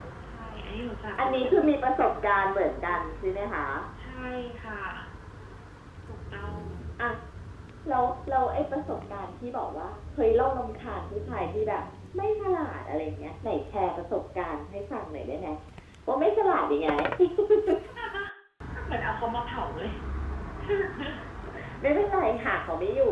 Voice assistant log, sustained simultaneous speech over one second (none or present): none